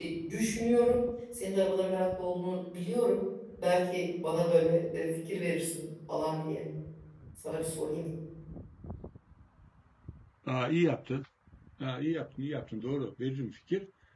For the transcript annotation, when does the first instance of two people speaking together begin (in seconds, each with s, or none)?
none